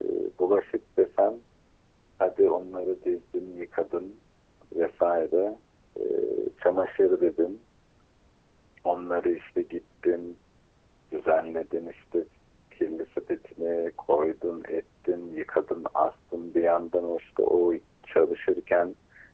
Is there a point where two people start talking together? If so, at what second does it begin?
none

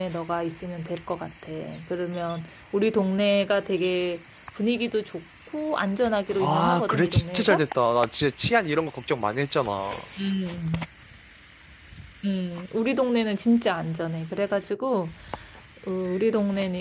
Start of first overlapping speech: 6.4 s

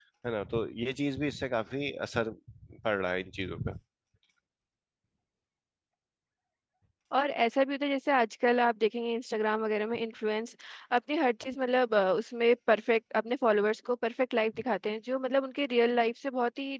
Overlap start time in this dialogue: none

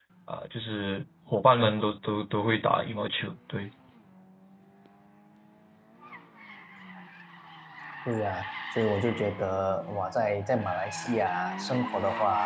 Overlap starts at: none

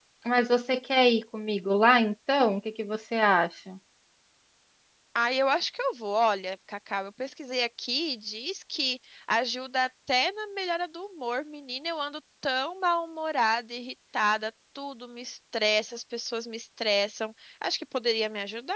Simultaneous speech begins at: none

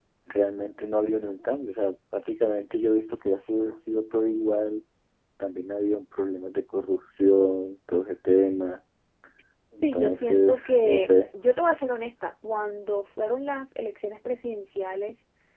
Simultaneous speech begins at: 9.8 s

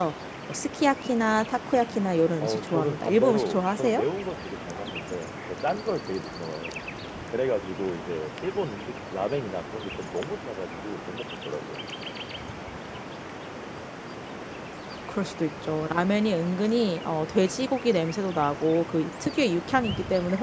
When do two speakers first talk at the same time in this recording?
2.4 s

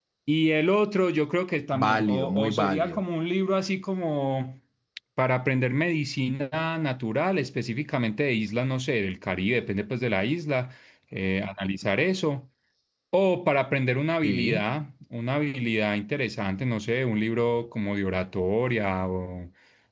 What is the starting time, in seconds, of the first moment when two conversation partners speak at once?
1.7 s

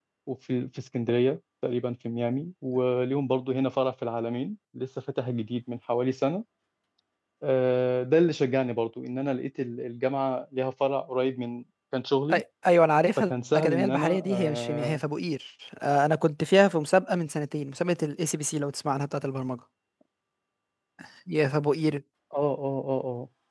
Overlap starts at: 13.2 s

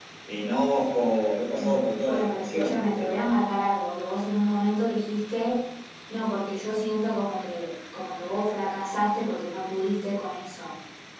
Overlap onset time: 1.6 s

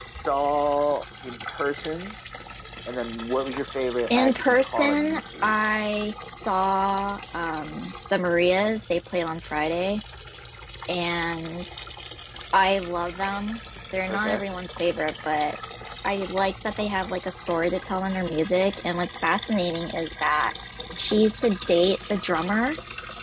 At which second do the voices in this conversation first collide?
4.1 s

